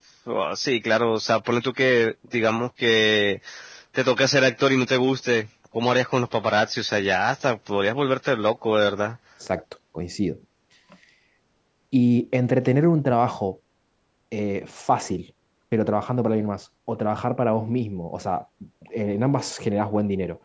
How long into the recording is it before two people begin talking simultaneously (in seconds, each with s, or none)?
none